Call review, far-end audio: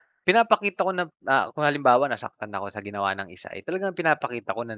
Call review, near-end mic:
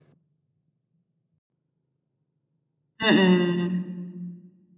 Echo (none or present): none